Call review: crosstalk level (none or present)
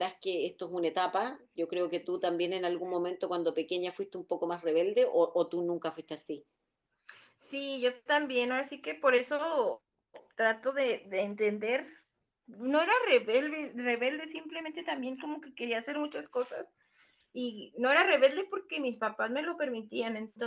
none